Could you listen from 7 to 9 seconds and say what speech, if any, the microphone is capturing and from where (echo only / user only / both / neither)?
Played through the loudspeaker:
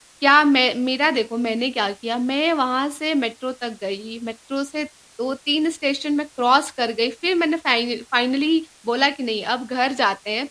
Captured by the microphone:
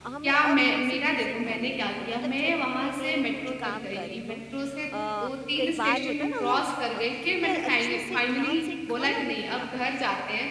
both